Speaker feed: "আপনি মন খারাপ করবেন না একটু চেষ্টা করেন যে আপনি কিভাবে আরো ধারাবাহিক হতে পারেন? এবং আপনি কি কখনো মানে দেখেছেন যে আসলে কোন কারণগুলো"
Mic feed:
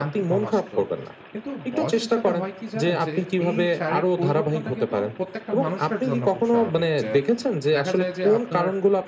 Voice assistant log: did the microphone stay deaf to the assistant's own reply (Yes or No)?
No